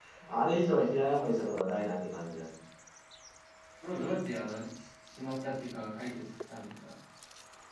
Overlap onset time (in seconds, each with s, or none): none